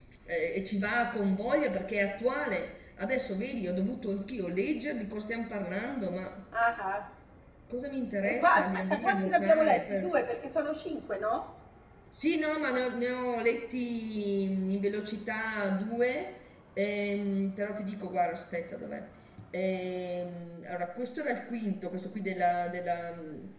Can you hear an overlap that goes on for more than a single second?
Yes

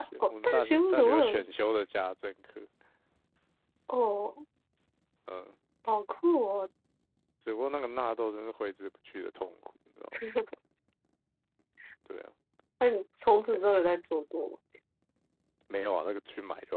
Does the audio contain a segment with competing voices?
Yes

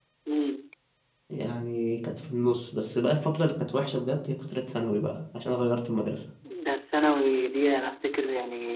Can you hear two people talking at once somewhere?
No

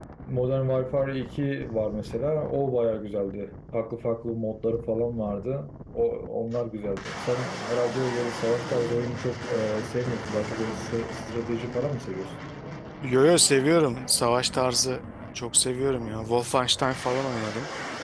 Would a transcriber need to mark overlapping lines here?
No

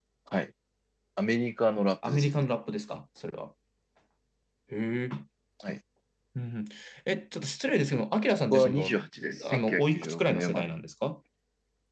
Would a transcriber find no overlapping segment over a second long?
No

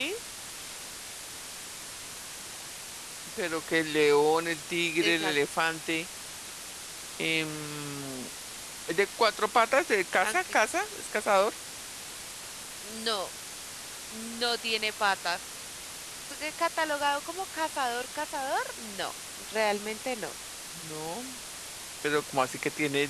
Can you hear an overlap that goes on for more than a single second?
No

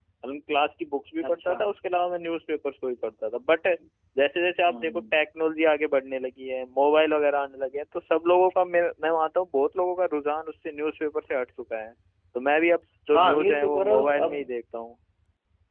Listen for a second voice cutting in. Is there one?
Yes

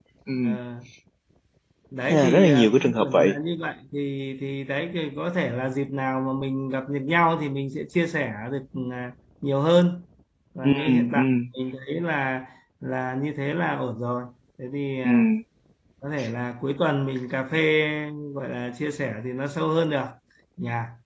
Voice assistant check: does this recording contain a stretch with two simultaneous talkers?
Yes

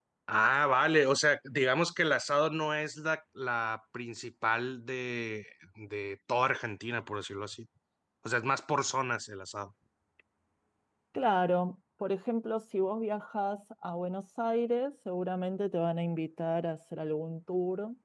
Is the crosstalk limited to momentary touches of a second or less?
Yes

